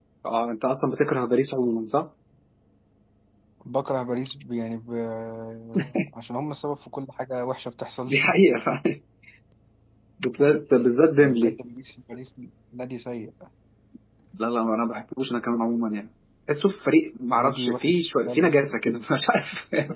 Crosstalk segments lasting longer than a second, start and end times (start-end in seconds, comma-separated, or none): 17.4-18.6